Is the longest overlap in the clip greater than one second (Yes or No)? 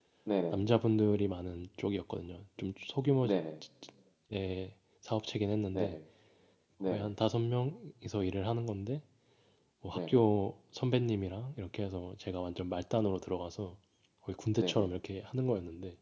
No